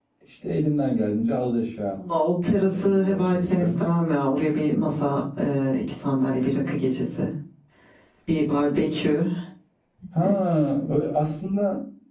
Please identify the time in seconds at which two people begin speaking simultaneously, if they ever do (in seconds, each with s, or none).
2.6 s